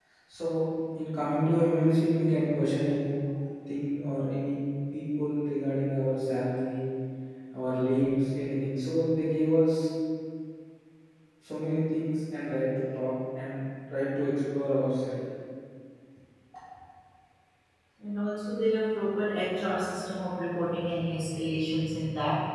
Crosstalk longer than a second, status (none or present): none